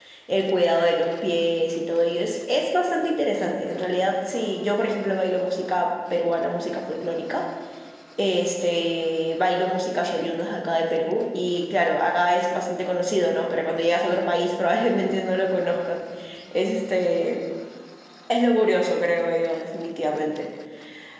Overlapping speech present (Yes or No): No